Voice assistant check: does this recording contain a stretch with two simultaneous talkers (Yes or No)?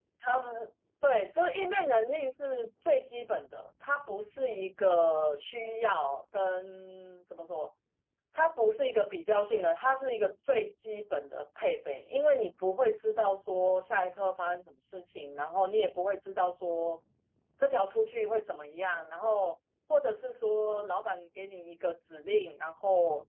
No